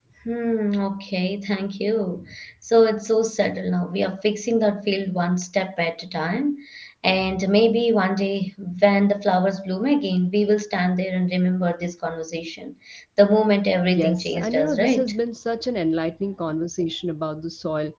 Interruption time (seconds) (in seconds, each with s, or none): 13.9 s